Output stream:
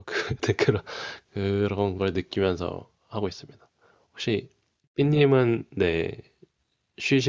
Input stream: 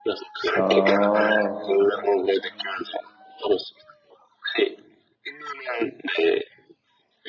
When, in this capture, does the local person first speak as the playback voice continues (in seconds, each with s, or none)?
0.6 s